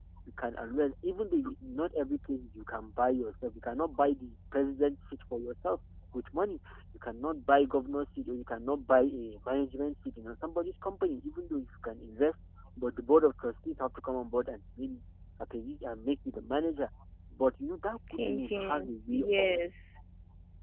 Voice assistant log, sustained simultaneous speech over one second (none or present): present